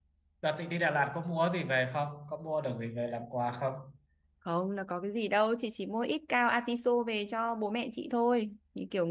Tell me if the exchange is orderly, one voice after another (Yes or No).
Yes